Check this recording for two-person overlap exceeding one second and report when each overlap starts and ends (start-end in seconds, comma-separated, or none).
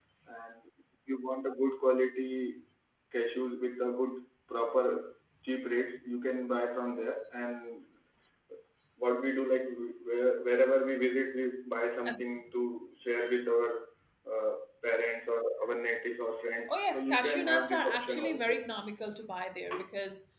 16.7-18.5